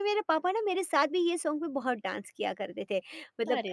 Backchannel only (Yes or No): Yes